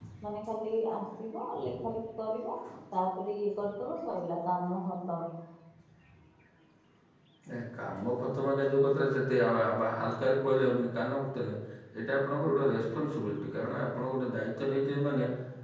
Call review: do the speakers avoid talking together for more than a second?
Yes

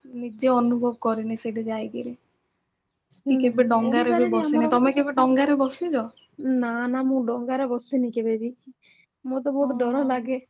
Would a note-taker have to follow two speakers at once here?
Yes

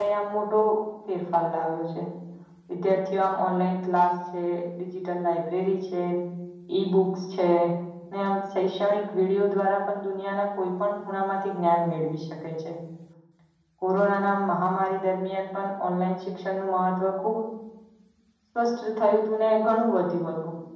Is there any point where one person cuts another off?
No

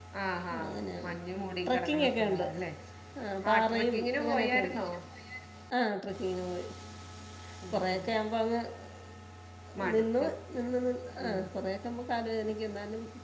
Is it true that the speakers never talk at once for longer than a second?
No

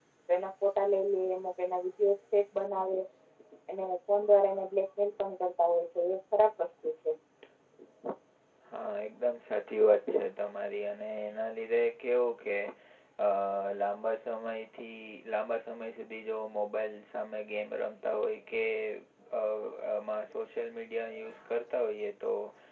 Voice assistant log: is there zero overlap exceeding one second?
Yes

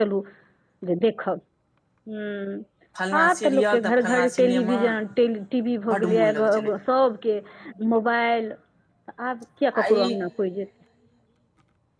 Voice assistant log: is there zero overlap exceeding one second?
No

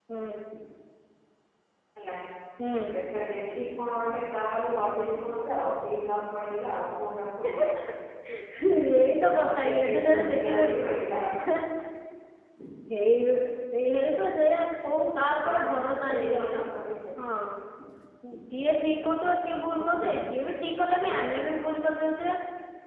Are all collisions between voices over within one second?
No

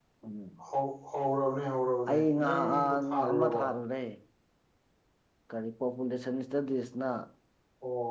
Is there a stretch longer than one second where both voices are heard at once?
Yes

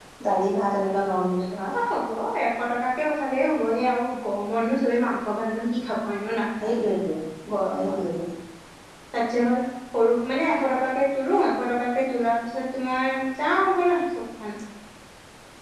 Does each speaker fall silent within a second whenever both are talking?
Yes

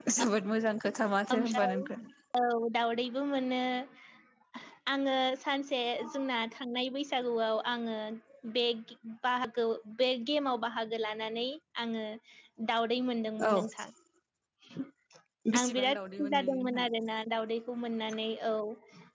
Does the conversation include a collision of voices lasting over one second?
Yes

